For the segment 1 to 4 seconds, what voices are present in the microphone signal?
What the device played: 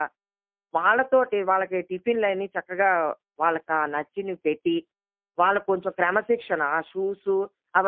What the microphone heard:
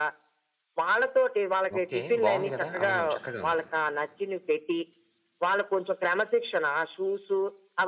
both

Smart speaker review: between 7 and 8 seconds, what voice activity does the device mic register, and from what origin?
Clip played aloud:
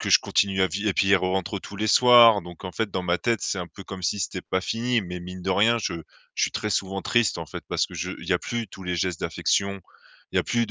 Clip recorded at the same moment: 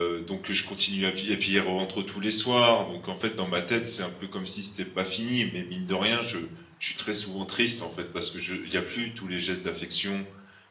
echo only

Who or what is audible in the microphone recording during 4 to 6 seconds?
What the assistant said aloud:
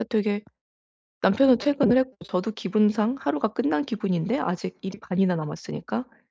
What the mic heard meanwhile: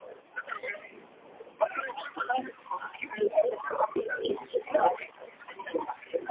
echo only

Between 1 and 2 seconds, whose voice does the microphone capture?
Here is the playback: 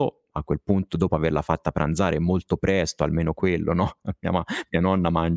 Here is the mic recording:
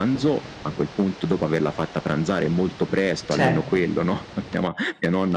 echo only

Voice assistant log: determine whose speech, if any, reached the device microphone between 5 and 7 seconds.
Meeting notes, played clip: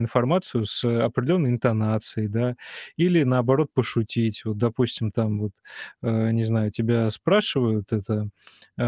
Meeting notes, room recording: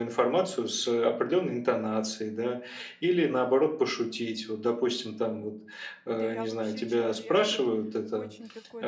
both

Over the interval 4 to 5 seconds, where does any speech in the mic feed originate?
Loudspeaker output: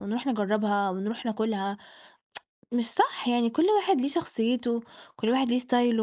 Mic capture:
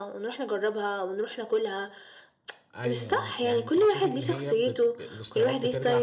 both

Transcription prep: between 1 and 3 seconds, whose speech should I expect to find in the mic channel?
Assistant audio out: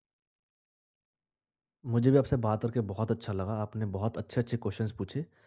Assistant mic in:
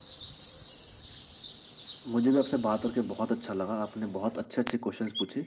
echo only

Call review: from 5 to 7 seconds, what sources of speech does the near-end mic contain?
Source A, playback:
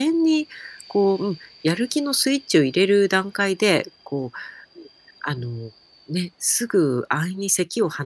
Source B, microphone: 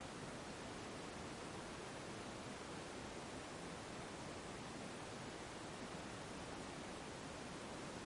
neither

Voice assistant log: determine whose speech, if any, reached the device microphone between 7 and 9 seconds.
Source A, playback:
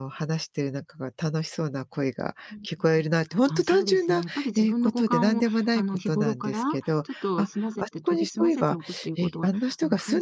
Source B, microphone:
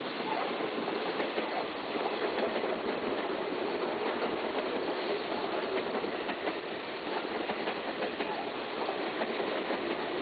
neither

